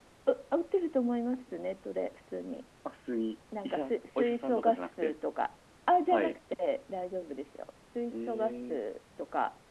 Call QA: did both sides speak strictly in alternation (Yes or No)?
No